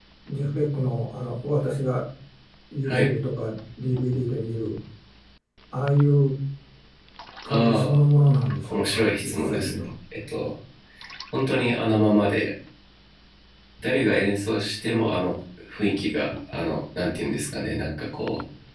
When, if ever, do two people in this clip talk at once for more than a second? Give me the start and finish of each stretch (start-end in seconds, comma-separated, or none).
8.6-9.9